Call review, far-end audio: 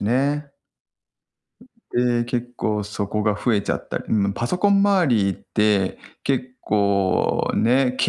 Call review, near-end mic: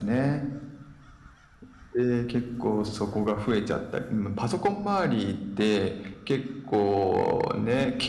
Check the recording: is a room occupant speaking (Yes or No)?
No